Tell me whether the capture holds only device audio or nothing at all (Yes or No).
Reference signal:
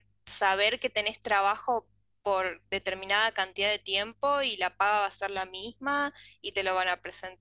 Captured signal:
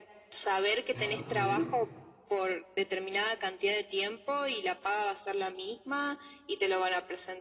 No